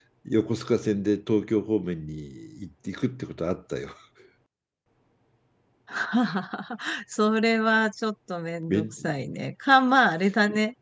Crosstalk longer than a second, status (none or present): none